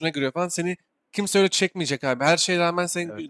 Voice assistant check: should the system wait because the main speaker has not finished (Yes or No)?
Yes